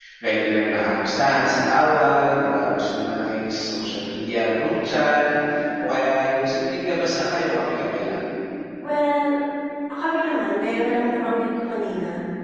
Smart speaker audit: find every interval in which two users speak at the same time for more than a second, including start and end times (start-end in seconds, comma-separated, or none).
none